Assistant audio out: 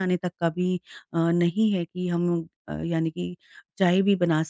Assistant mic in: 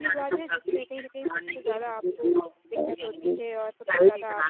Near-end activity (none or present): present